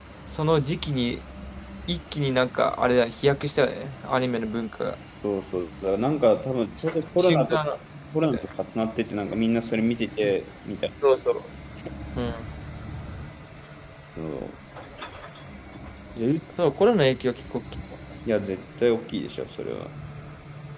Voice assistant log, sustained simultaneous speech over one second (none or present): none